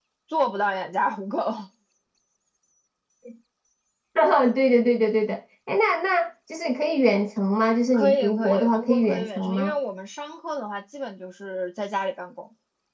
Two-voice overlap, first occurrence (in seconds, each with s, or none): 7.9 s